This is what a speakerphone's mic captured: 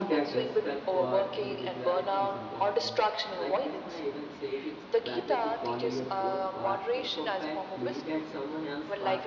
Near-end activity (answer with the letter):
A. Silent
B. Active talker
B